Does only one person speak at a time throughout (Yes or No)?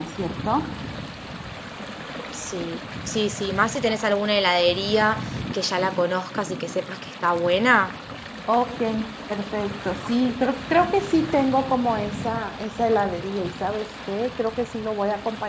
Yes